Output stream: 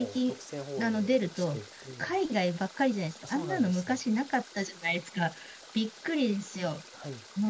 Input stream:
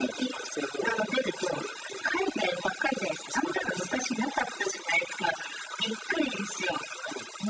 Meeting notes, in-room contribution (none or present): none